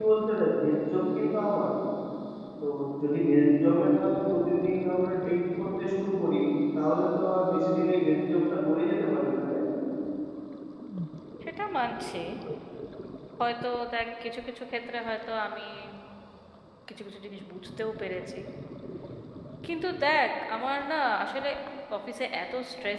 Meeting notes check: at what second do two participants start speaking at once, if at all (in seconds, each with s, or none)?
none